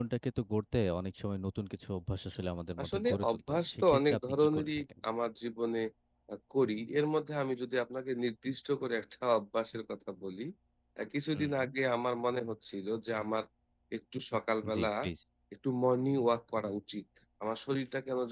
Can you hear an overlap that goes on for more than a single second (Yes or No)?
Yes